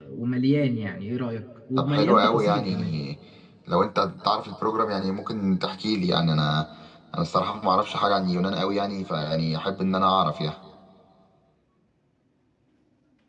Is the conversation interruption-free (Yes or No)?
No